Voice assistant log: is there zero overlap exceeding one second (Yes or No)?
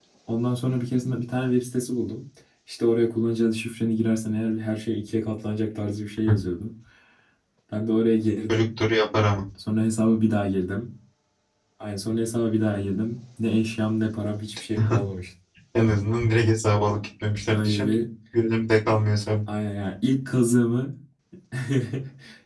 Yes